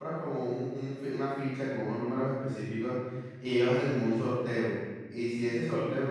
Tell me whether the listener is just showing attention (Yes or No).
Yes